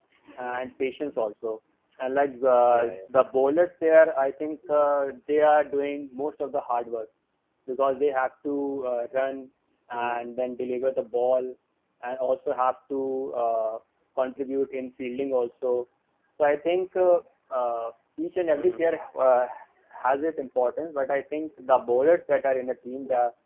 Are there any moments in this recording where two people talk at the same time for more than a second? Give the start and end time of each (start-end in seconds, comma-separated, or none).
none